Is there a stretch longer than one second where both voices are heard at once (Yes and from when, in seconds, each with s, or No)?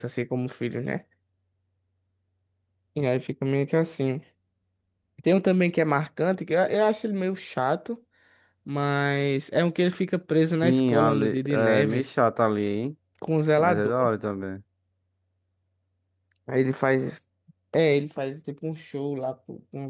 Yes, from 10.6 s